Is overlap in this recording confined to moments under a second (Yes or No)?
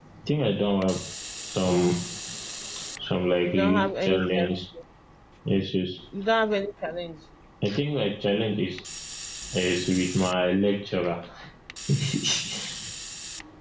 No